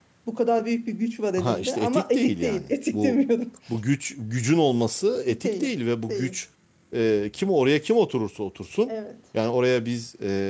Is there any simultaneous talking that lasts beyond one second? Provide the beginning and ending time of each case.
1.4-3.2

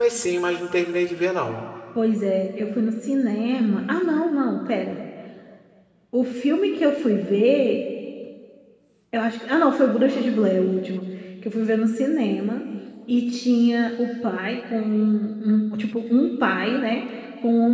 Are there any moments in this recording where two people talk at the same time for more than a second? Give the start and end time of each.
none

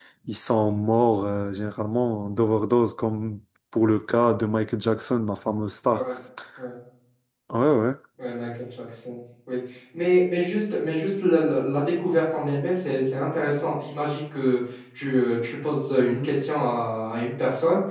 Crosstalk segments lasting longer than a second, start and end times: none

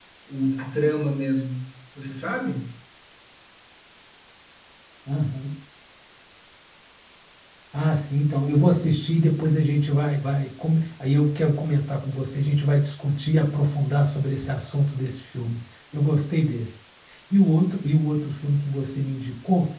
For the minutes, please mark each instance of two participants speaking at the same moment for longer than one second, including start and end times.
none

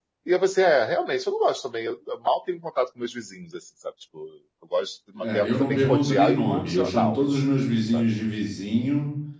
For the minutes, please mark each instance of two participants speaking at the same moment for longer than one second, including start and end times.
5.2-7.2

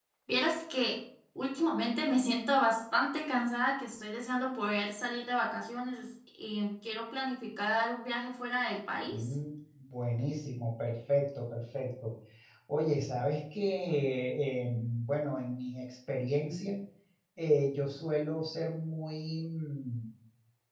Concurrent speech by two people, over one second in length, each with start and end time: none

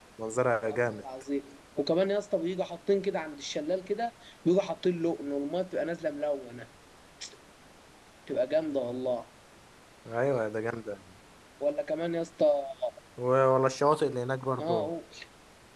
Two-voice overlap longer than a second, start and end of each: none

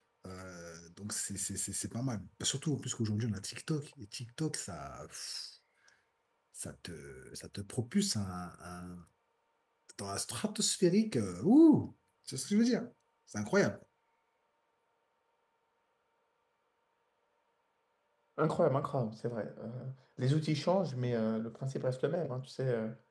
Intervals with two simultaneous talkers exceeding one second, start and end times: none

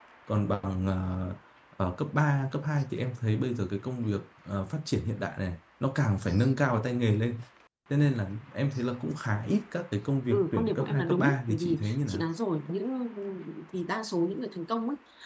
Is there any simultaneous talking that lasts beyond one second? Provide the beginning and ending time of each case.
10.3-12.2

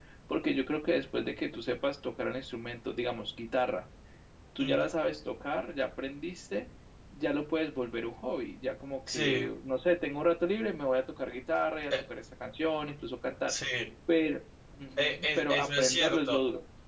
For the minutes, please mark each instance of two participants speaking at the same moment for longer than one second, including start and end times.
15.0-16.4

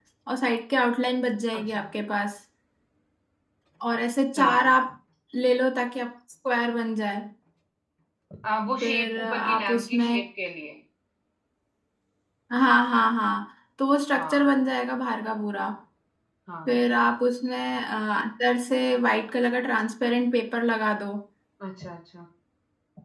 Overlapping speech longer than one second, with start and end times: 8.8-10.2

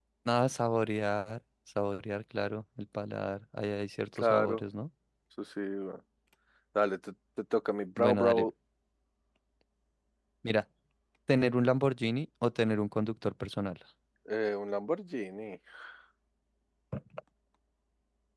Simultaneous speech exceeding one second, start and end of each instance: none

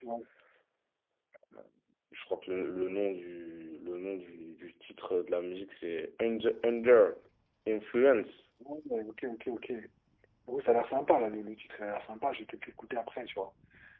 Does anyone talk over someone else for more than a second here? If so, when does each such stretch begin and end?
none

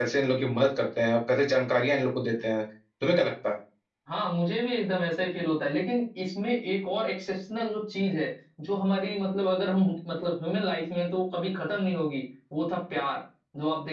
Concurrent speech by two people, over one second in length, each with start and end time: none

